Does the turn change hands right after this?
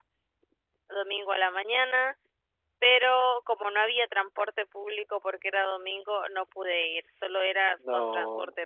No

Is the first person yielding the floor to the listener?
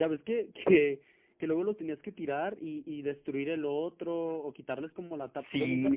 Yes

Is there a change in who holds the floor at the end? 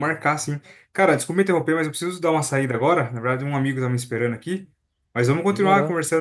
No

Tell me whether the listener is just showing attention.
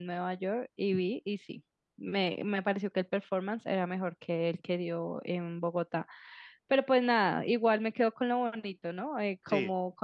Yes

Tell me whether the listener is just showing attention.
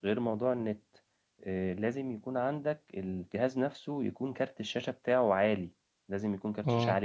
No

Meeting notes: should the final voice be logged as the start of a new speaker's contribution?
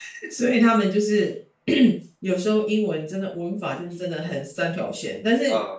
No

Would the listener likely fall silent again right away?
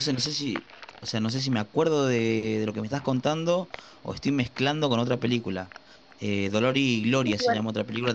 Yes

